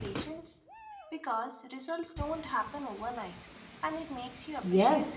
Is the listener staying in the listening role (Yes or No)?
No